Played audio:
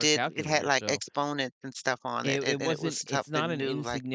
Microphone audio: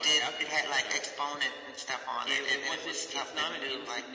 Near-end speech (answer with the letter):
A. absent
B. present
A